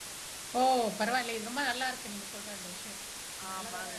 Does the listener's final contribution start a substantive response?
No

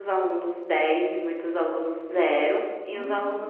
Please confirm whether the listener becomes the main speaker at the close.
No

